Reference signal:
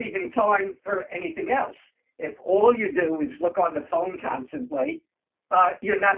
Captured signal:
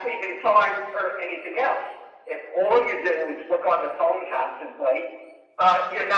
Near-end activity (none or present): none